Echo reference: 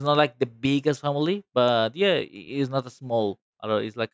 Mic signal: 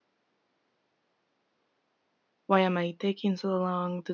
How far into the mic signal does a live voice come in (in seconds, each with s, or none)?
2.5 s